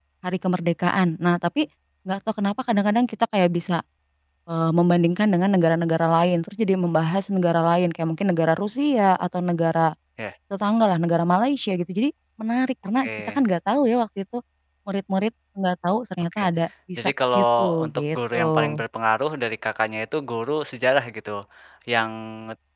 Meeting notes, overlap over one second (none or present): present